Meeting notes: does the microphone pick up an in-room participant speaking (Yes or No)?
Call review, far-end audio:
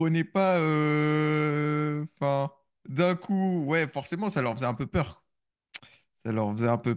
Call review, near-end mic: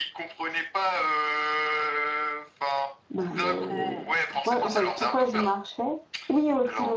Yes